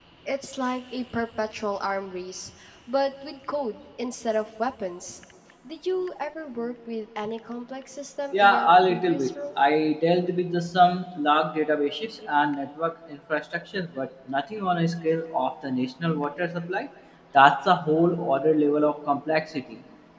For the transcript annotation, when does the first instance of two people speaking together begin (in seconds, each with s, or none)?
8.3 s